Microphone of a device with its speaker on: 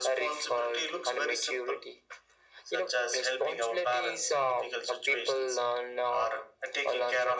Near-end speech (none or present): none